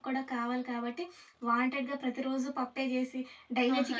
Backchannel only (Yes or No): No